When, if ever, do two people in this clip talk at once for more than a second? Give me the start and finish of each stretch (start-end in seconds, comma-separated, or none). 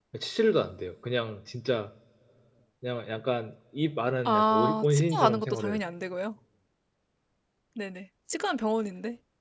4.2-5.8